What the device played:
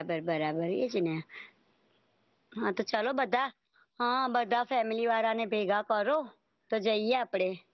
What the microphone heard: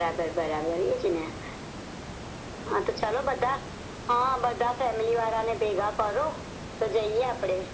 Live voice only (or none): none